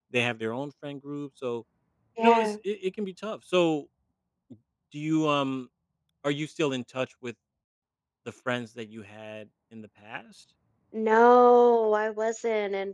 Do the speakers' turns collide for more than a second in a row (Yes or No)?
No